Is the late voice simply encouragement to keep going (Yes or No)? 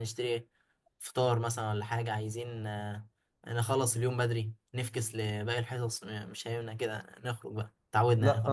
No